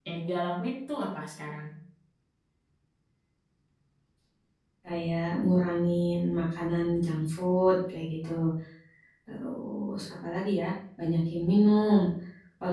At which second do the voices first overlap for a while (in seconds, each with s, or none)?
none